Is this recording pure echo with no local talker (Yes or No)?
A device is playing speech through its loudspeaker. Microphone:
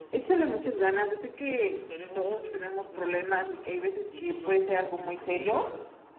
No